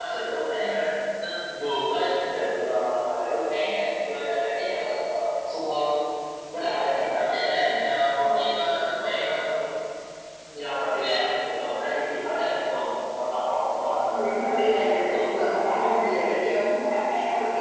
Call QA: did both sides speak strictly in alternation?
No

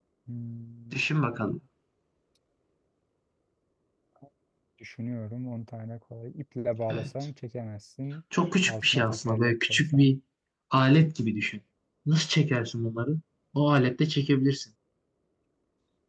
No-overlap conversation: No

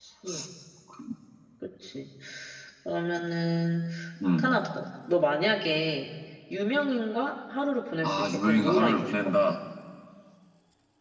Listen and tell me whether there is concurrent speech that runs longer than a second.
Yes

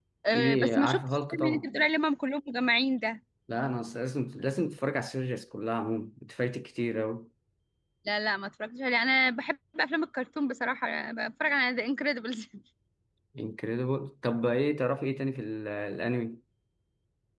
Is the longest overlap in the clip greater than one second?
Yes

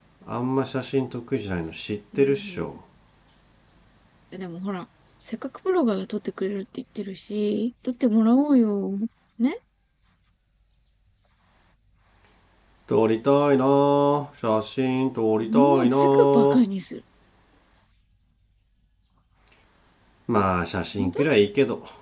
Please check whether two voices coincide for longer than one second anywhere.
Yes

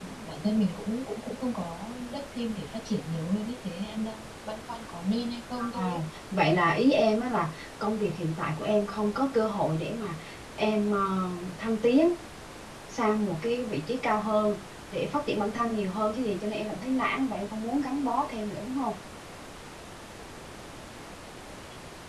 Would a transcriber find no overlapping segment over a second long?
Yes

